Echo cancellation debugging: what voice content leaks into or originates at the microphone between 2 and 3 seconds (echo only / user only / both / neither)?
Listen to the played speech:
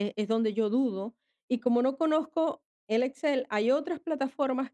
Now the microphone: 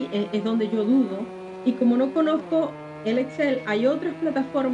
echo only